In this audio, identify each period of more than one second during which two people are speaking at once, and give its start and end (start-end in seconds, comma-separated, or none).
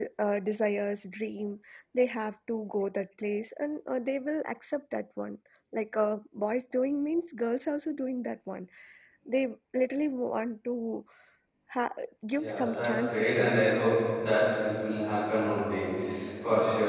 12.4-13.7